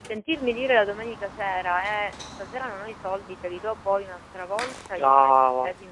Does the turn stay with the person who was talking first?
Yes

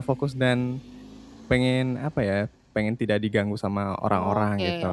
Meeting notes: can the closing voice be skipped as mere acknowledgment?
No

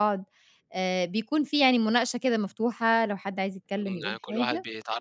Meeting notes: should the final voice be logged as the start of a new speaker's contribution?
Yes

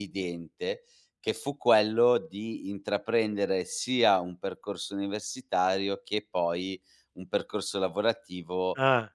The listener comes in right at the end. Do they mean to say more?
No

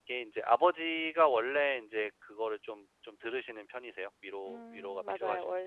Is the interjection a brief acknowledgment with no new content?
No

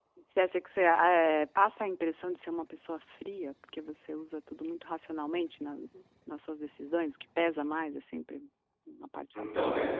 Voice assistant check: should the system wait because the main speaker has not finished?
No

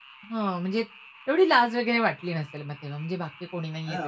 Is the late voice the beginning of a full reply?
Yes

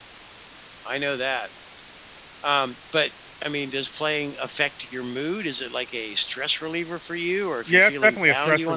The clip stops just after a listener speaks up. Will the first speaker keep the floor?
No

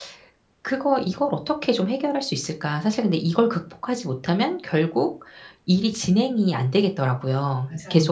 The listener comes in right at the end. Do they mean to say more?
No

